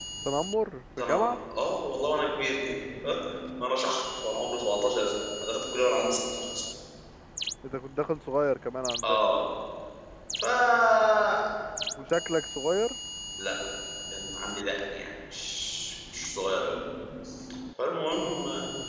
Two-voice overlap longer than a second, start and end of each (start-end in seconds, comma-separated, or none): none